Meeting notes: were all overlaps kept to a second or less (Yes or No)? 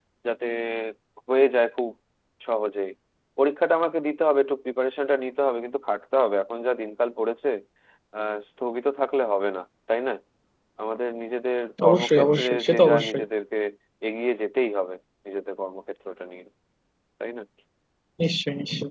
No